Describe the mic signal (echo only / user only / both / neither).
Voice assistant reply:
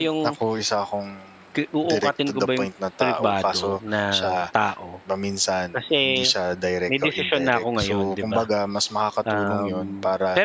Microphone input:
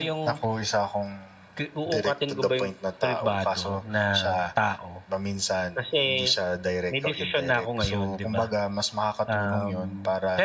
echo only